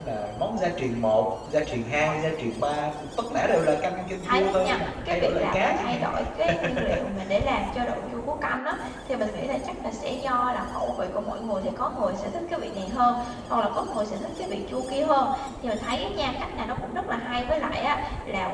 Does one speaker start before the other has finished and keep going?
Yes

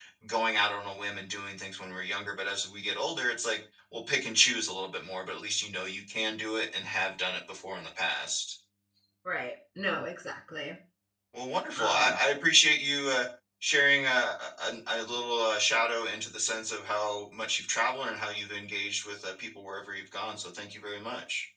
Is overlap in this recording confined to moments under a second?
Yes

